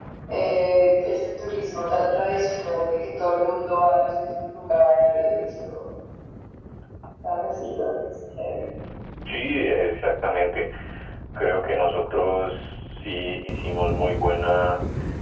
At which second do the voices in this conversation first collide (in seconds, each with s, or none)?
none